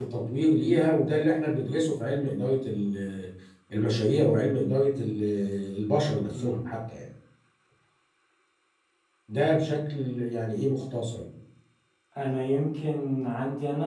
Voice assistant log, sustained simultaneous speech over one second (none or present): none